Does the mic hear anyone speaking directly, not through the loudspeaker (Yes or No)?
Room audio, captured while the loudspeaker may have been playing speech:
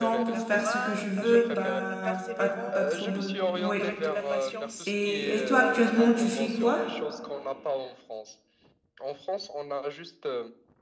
Yes